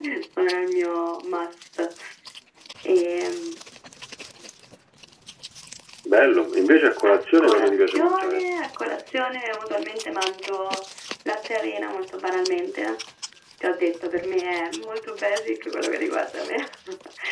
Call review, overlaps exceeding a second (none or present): present